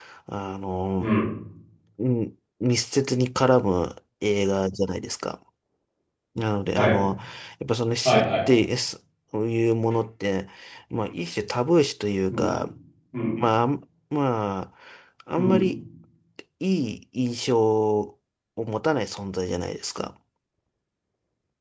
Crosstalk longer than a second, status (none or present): none